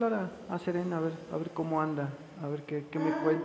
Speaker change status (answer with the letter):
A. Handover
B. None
B